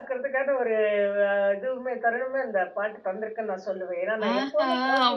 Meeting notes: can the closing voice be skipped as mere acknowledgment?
No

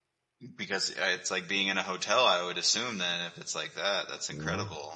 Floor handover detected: Yes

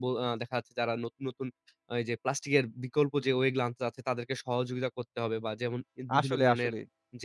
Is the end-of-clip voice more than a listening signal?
No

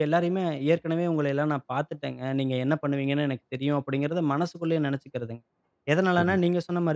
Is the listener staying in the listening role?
Yes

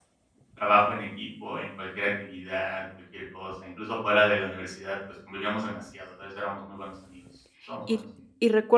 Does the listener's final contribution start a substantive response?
Yes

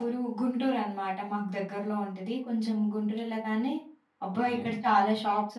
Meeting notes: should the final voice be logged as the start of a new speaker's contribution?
No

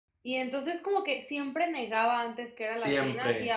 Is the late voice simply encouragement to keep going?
Yes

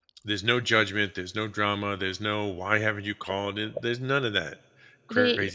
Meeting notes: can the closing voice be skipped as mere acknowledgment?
No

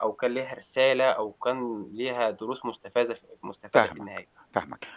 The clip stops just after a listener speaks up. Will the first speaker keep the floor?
No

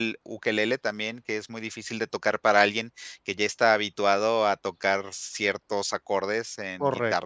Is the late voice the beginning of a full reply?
Yes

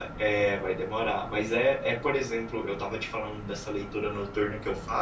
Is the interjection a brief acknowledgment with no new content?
Yes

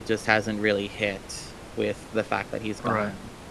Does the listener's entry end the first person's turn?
Yes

